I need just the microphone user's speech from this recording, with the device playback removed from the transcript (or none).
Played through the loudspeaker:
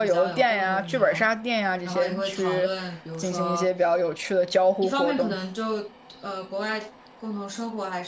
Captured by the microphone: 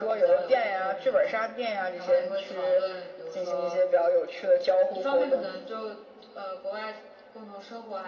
none